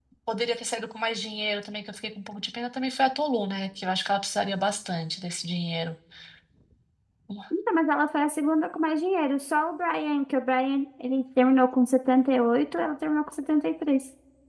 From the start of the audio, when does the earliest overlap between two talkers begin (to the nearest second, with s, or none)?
none